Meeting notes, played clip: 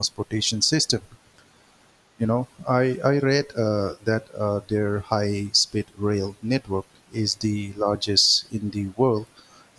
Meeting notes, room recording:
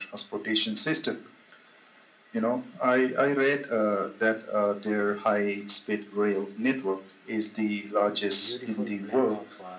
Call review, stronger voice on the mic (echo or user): echo